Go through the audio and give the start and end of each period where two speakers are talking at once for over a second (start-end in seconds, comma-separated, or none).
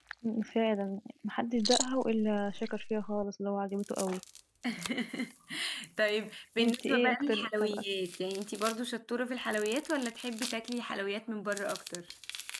6.6-7.8